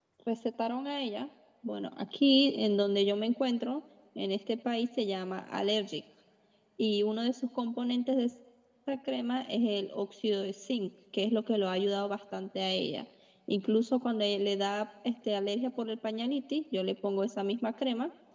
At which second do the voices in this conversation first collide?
none

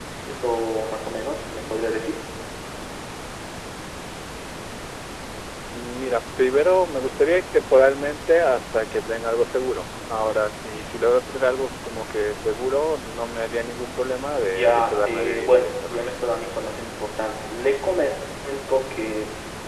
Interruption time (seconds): 14.4 s

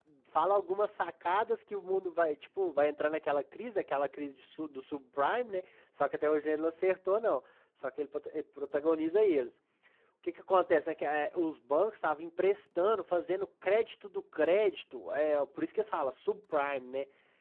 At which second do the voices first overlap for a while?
none

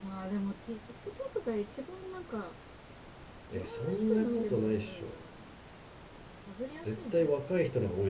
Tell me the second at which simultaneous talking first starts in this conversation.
3.5 s

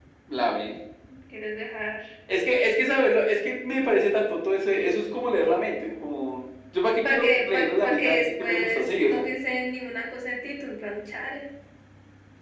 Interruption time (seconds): 6.9 s

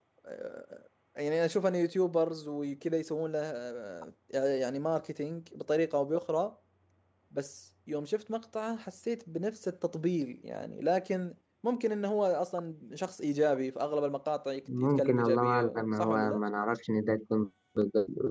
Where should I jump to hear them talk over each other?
14.7 s

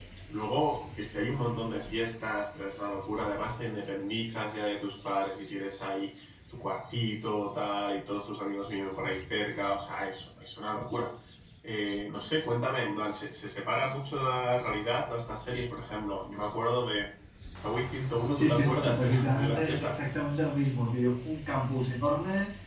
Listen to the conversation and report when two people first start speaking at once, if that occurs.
18.3 s

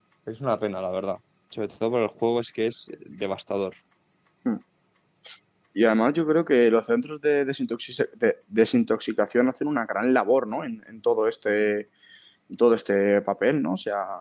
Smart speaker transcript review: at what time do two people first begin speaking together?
none

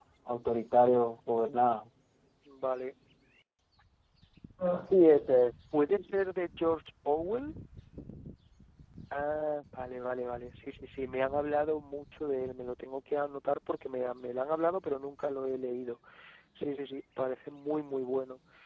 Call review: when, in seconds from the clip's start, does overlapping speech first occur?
none

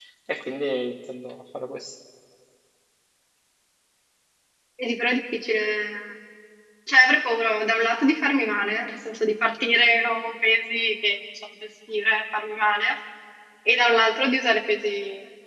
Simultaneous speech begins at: none

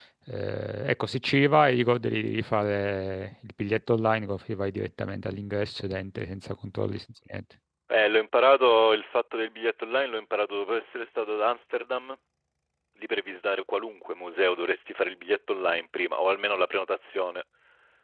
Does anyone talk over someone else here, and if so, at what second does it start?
none

